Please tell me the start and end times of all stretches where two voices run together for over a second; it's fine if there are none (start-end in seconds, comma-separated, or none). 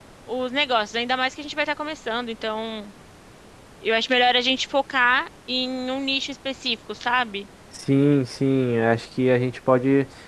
none